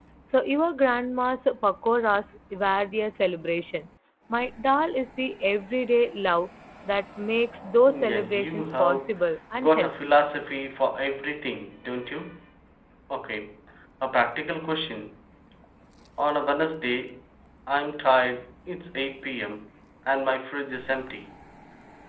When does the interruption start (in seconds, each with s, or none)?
7.9 s